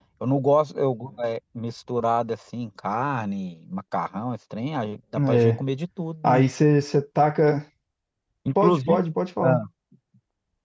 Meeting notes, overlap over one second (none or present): none